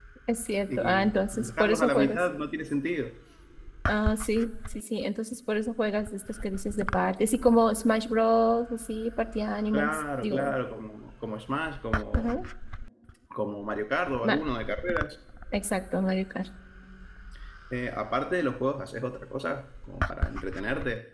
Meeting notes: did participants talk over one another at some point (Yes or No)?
Yes